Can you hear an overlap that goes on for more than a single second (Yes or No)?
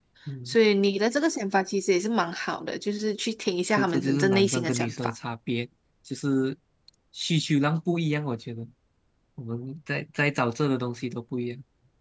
Yes